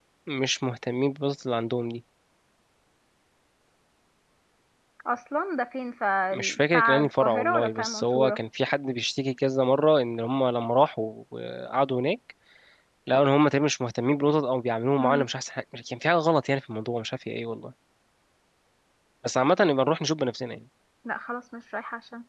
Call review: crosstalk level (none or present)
present